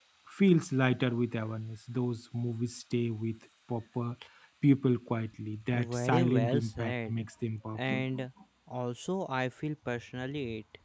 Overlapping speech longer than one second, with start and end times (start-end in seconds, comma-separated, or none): 5.7-7.2